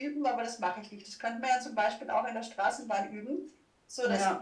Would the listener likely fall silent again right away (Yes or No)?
Yes